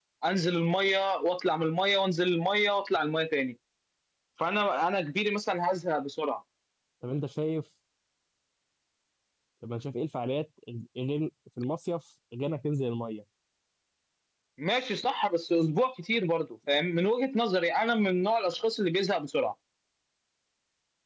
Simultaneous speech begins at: none

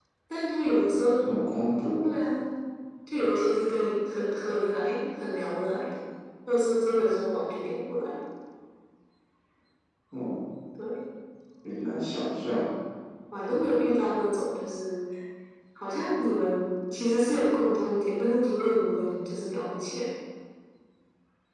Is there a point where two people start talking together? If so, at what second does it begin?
none

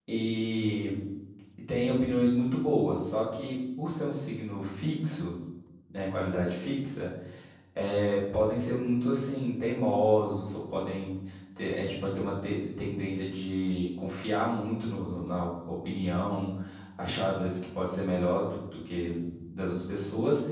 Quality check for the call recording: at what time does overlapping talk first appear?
none

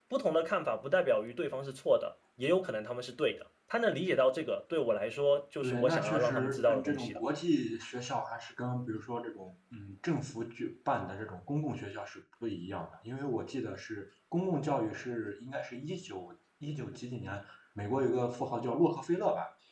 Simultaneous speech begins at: 5.6 s

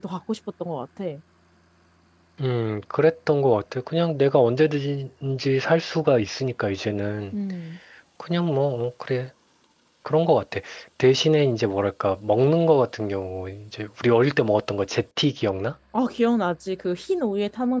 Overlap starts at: none

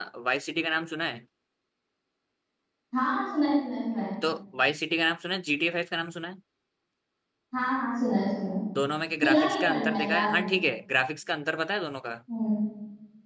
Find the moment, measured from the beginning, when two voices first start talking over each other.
9.2 s

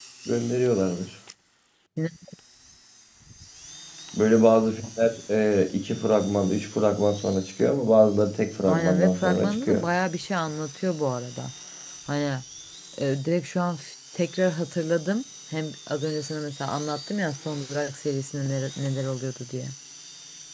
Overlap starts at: 8.7 s

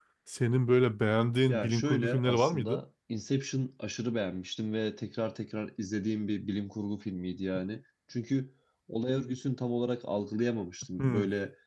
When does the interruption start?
1.5 s

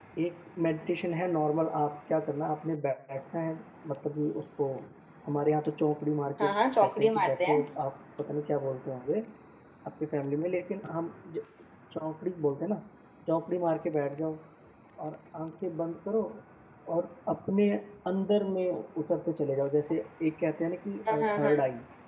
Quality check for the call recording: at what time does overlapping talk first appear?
6.4 s

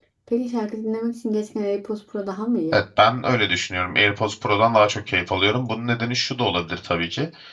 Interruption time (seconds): none

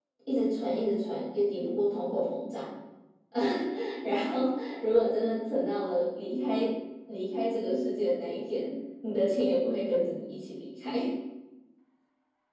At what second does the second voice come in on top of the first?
none

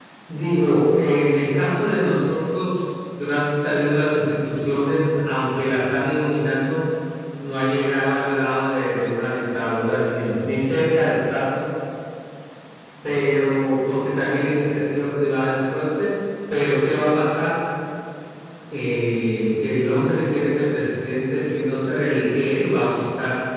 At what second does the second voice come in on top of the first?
none

